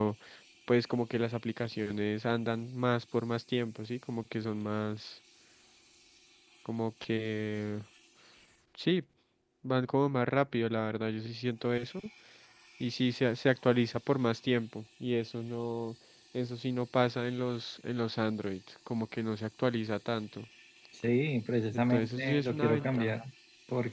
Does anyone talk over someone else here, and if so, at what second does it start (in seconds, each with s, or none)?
21.7 s